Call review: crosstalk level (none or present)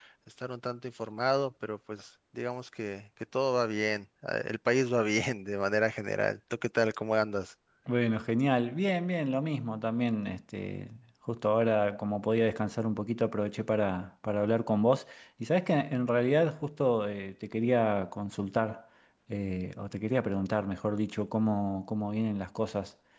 none